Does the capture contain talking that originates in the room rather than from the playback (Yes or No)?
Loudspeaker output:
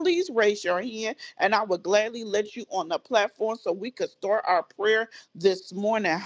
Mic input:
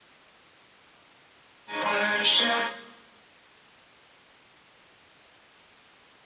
Yes